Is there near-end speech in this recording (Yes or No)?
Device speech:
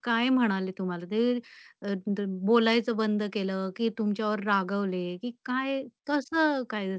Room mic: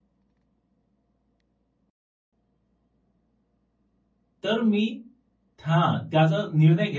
Yes